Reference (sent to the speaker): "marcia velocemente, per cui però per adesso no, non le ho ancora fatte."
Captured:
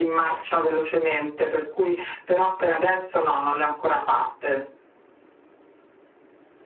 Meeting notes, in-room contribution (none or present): none